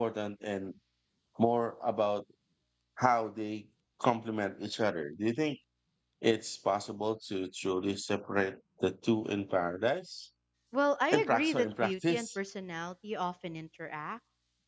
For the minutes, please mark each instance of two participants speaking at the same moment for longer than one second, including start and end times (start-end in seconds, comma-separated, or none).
11.1-12.4